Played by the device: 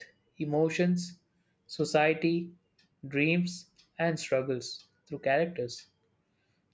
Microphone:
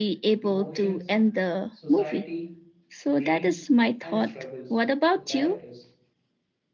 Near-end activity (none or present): present